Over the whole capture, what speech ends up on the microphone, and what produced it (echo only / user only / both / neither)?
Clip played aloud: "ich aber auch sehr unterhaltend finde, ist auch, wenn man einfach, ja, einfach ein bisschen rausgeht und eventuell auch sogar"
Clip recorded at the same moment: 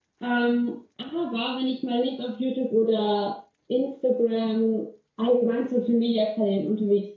user only